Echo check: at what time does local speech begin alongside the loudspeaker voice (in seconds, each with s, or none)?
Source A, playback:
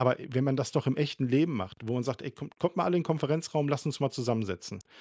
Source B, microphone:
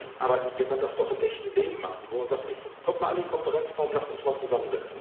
none